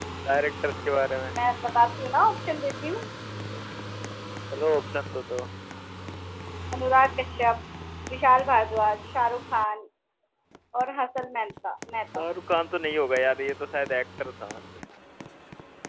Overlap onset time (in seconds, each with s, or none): none